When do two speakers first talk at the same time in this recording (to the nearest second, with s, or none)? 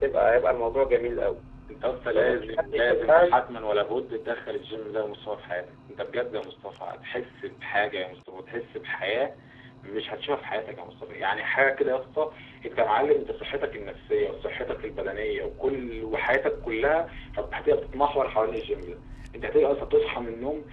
2 s